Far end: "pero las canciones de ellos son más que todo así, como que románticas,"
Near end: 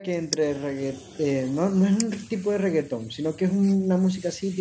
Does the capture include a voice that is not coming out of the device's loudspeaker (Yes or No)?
Yes